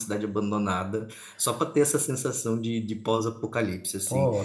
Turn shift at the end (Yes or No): Yes